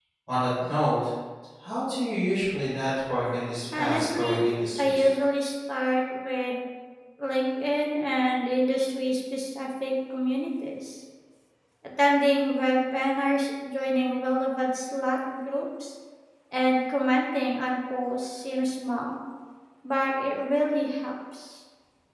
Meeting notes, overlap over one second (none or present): present